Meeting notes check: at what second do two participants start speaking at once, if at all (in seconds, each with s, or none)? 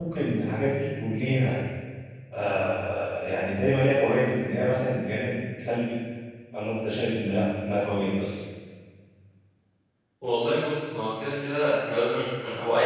none